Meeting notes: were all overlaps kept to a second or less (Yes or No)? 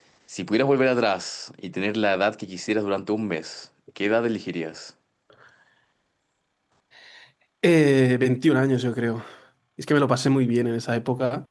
Yes